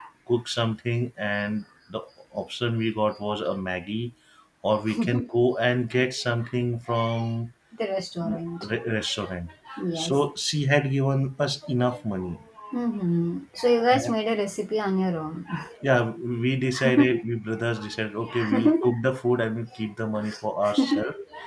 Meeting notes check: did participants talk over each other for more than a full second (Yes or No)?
No